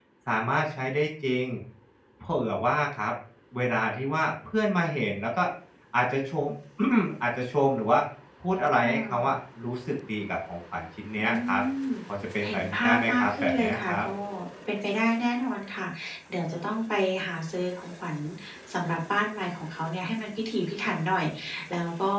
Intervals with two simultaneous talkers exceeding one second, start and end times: 12.4-14.1

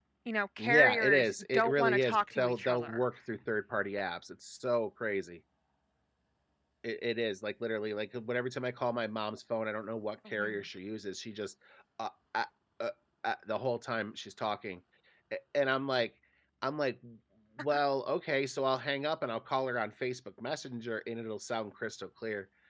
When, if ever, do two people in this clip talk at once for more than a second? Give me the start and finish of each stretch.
0.6-3.0

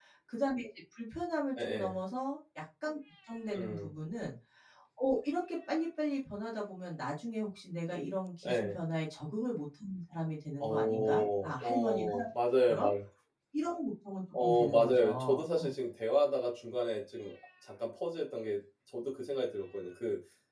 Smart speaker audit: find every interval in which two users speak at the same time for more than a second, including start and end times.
10.6-12.0, 14.4-15.7

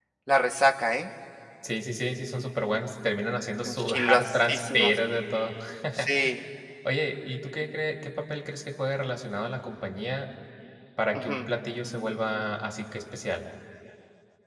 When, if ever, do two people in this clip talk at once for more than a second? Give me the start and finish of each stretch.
3.6-5.0

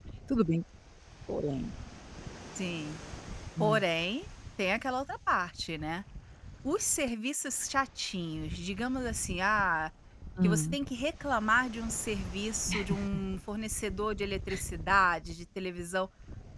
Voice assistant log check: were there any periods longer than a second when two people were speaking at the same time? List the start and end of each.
none

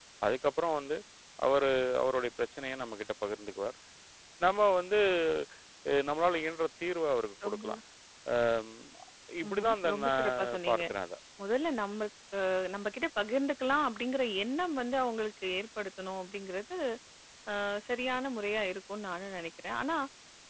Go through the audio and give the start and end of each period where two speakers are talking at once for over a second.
9.5-10.8

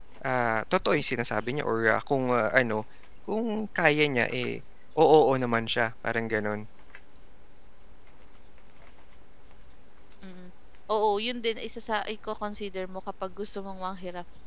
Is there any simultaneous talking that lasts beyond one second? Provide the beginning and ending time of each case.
none

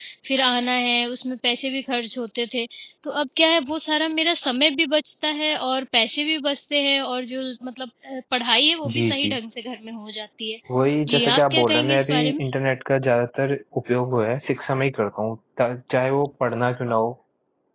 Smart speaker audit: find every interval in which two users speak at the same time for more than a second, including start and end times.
11.1-12.4

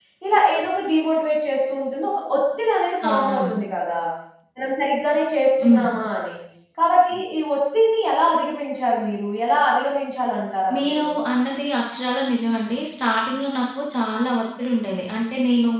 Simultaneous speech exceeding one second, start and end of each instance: none

